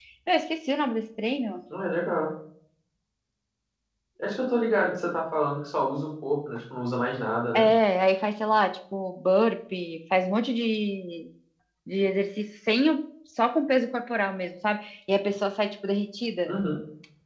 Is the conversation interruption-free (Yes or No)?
Yes